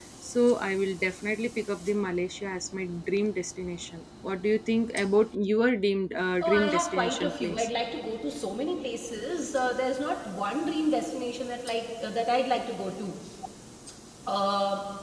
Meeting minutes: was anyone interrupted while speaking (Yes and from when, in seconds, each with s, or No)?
Yes, from 6.4 s